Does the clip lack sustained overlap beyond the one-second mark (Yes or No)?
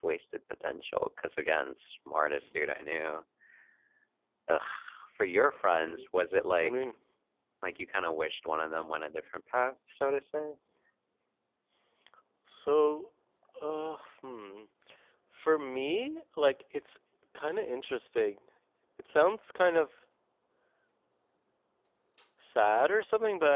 Yes